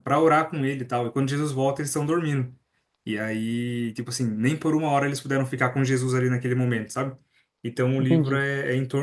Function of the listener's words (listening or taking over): listening